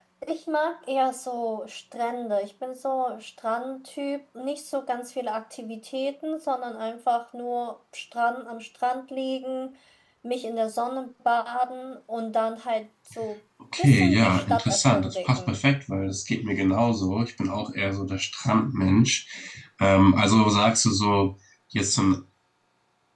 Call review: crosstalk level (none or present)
present